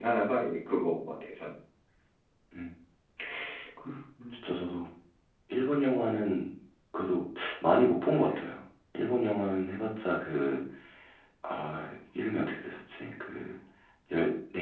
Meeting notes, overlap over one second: none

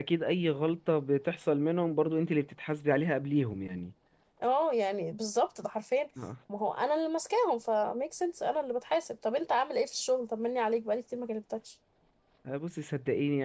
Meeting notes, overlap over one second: none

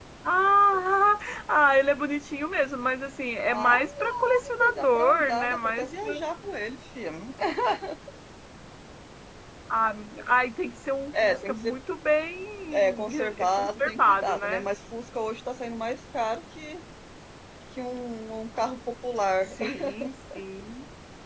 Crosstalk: present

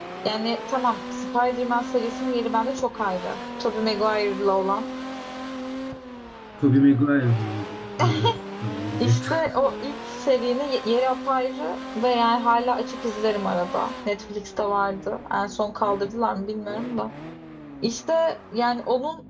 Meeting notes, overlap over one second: none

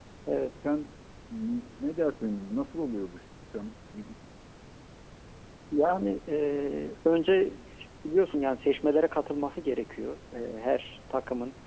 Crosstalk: none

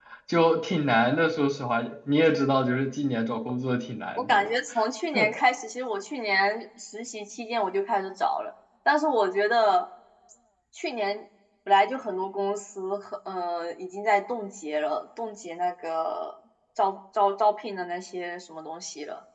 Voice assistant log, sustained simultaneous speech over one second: none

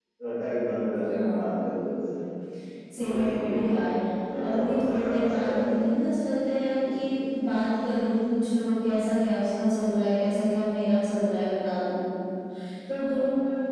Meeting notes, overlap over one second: present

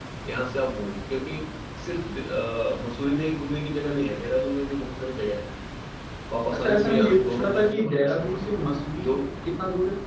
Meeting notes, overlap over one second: present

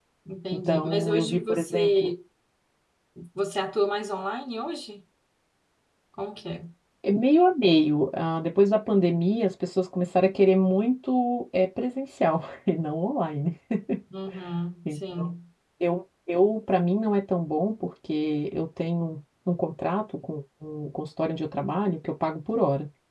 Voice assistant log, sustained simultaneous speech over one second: present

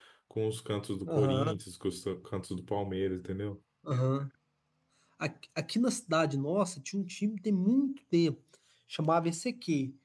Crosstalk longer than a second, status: none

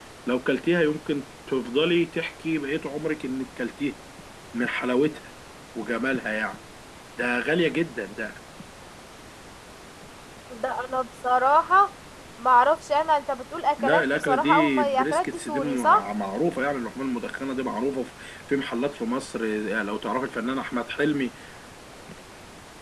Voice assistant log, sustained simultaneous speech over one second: present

